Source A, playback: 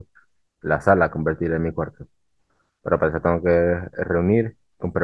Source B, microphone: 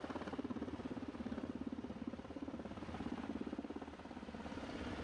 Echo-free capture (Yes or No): Yes